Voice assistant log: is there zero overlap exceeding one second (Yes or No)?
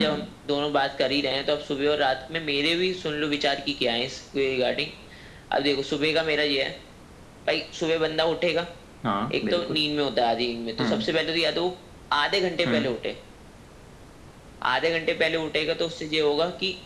Yes